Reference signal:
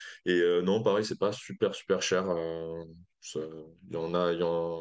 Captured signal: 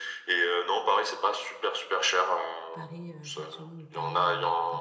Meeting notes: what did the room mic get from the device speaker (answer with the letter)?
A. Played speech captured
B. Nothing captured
A